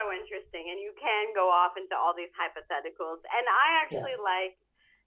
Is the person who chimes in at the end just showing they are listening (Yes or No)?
Yes